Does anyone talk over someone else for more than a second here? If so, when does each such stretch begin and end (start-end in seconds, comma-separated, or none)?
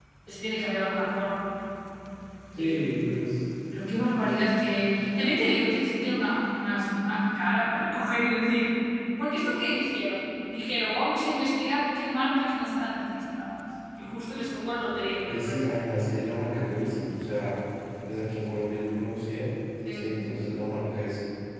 none